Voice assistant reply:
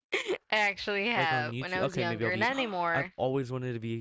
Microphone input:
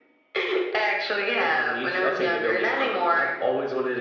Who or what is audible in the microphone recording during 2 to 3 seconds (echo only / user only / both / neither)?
echo only